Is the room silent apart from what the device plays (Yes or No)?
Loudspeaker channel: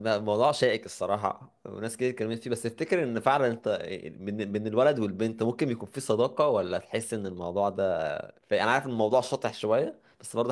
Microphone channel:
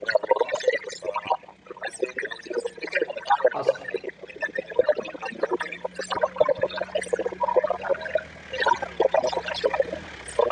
No